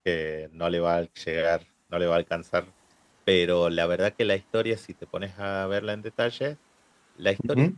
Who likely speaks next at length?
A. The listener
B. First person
B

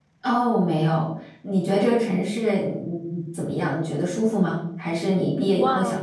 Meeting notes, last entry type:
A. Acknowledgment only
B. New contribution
B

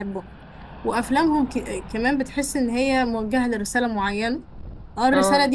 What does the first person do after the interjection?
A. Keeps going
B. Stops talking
A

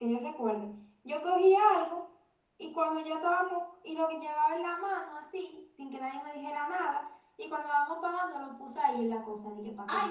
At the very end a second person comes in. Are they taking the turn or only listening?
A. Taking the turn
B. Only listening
A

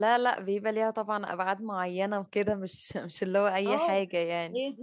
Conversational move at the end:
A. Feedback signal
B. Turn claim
B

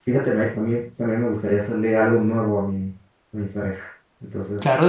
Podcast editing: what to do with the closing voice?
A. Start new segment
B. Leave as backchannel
A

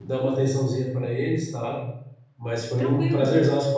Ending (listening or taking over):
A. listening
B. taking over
A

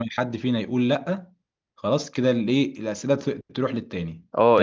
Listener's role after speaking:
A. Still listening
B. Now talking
B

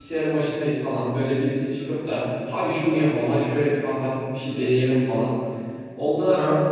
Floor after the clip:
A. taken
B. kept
B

